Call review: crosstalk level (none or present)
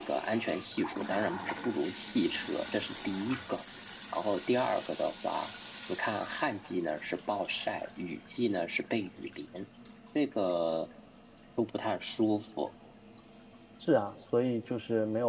none